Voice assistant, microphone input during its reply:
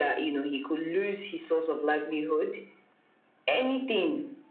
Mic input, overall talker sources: echo only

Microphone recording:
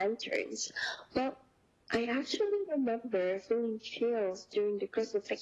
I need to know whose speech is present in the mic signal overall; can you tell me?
echo only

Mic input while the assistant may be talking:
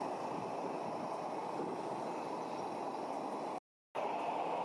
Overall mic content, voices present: neither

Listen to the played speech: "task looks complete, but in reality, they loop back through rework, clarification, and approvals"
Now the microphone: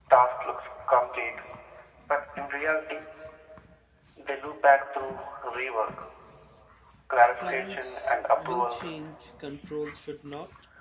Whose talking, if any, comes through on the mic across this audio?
both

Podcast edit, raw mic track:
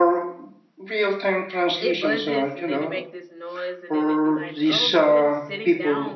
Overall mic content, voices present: both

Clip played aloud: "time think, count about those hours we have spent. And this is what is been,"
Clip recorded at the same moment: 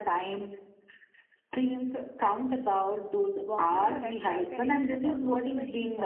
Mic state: both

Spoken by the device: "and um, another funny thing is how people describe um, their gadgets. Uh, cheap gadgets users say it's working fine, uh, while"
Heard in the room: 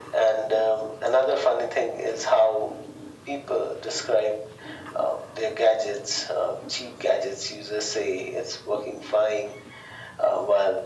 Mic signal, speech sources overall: echo only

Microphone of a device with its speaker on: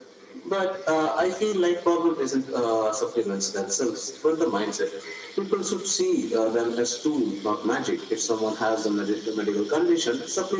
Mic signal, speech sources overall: echo only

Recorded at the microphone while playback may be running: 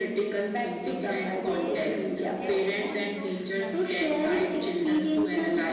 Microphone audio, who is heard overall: both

